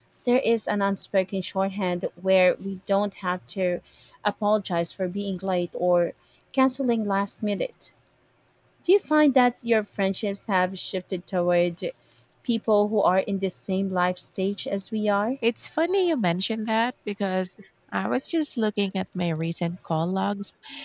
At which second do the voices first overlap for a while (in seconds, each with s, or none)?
none